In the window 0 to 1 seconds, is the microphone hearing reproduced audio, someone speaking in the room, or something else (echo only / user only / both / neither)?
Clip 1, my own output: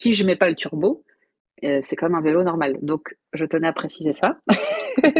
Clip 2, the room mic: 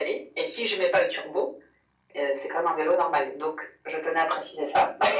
echo only